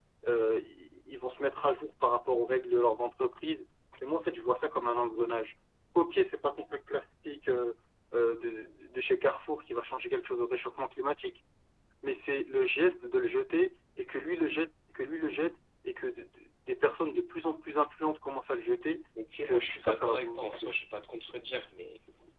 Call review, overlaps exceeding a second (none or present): present